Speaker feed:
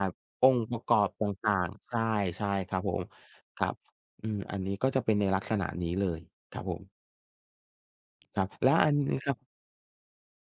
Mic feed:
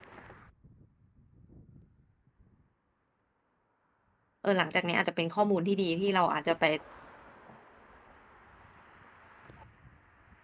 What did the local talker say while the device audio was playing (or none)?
เออหลังจากเนี้ยอาจจะเป็นข้อมูลที่ดีที่เราอาจจะไป